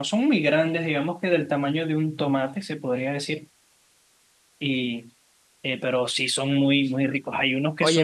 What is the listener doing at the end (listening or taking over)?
taking over